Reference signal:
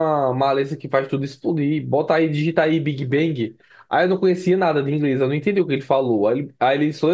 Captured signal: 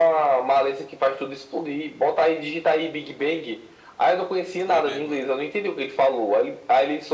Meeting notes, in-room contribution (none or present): present